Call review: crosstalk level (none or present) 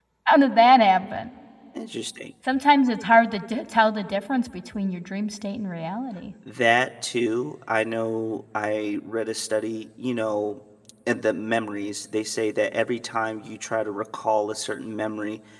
none